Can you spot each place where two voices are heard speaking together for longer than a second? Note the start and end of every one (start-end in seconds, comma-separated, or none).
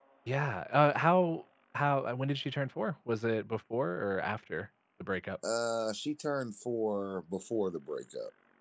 none